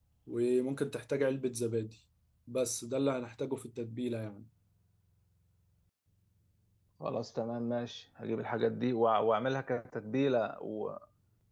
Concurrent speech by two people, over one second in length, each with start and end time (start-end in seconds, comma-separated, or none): none